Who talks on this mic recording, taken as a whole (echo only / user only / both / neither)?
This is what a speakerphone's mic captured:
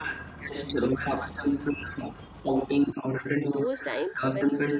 both